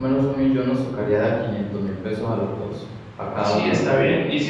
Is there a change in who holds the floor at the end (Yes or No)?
Yes